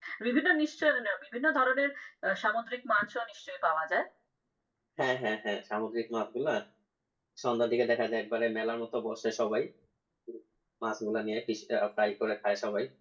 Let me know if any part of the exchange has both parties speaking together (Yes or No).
No